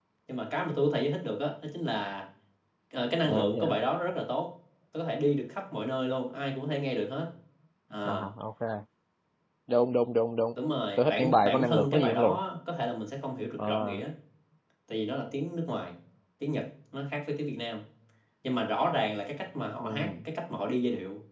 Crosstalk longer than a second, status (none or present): present